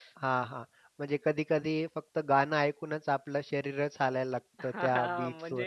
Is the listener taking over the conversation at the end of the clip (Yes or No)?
Yes